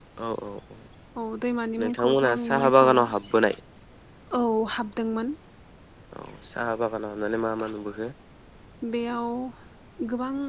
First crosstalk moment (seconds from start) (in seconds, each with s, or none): 1.8 s